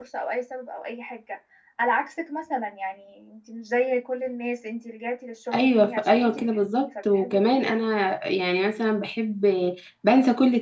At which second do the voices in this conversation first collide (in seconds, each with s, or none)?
5.5 s